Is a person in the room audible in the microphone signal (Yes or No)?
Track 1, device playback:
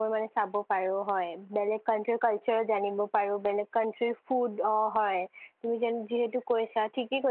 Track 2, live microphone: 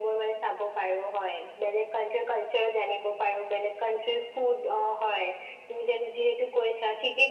No